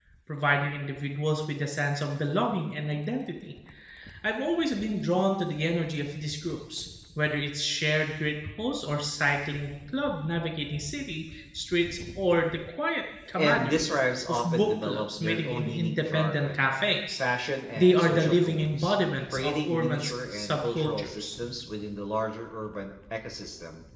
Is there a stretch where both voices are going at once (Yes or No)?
Yes